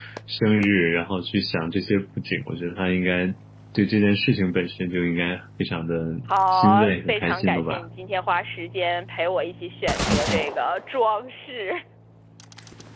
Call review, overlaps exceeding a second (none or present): present